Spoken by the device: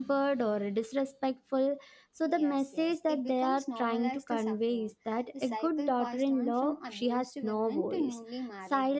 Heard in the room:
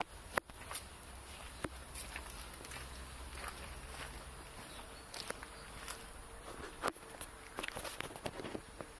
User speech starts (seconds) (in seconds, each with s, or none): none